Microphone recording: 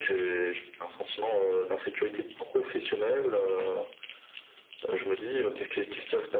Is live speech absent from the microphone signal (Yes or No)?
Yes